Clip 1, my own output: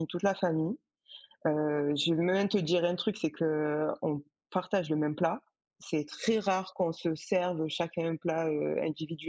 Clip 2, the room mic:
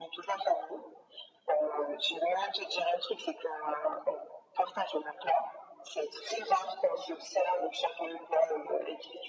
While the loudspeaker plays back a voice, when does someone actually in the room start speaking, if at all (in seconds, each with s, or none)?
none